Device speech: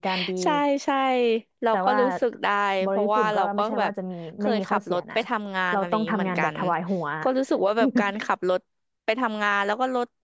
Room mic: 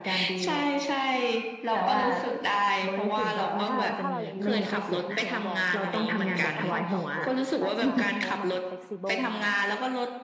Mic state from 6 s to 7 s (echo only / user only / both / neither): both